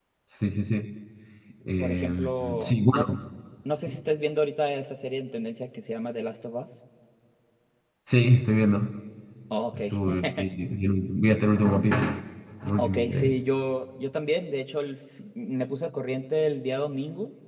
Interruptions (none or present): present